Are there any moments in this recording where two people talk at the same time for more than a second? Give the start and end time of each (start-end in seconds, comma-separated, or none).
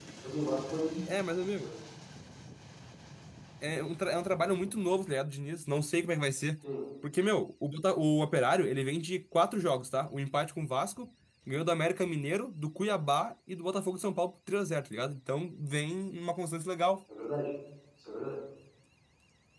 none